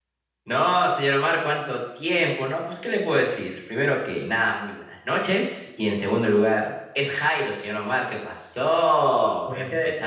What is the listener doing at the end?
taking over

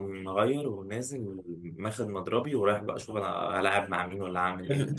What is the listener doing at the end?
taking over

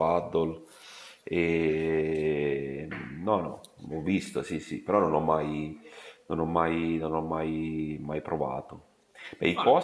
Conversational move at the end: listening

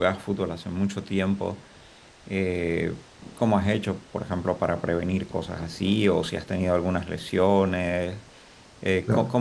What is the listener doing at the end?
listening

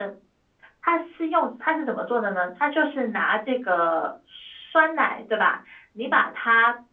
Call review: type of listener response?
listening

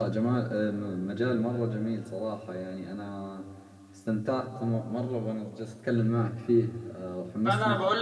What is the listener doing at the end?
taking over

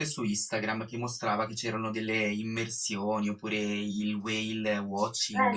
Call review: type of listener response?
taking over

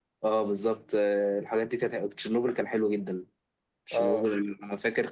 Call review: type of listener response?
listening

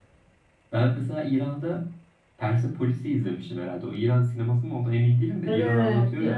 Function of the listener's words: taking over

